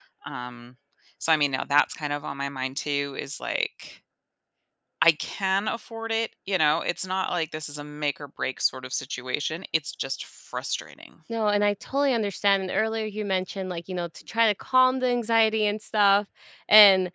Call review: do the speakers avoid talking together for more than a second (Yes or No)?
Yes